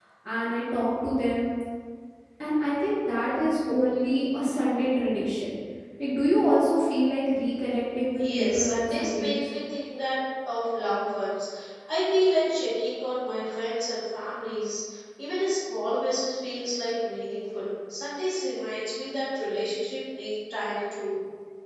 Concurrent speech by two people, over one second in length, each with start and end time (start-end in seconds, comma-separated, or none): 8.2-9.4